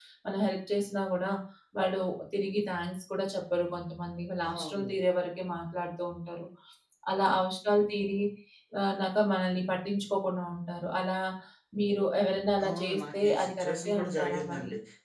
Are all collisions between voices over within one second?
No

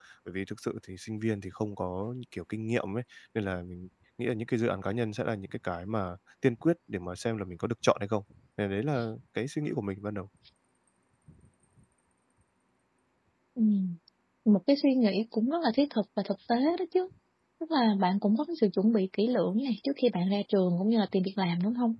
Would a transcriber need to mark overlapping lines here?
No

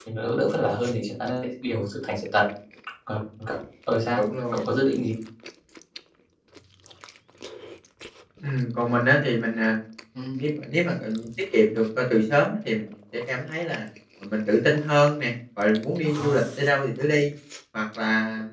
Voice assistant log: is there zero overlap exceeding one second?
Yes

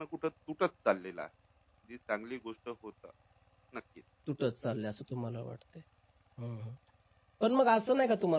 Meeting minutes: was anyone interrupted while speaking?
No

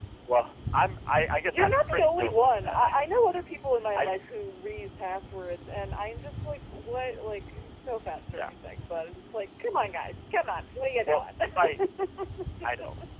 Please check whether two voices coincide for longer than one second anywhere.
Yes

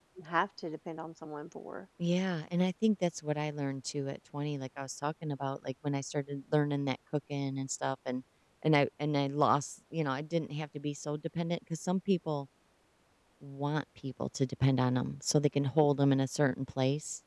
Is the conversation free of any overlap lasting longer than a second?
Yes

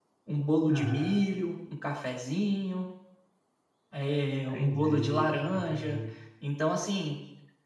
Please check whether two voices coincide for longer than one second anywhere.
Yes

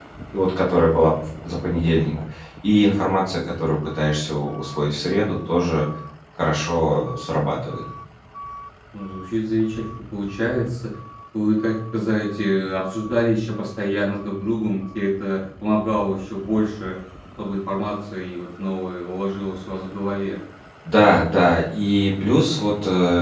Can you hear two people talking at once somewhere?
No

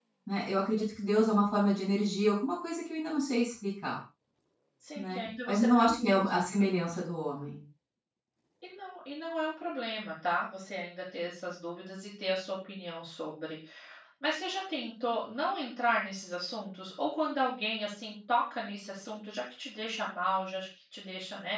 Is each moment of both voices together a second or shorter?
No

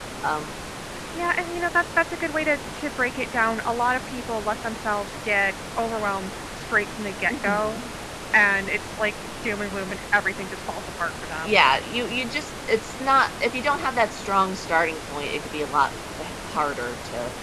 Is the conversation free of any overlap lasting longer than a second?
Yes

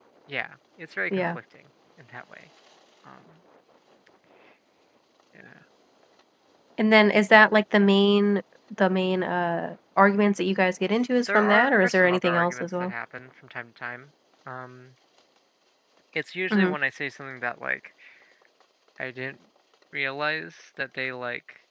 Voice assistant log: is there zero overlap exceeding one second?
No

